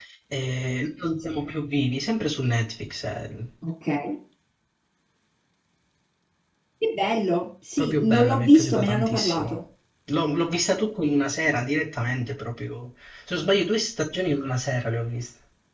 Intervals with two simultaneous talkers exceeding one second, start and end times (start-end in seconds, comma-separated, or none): 7.8-9.6